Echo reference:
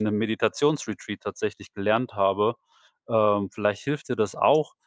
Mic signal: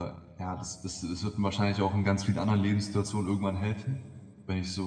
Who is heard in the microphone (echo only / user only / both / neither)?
user only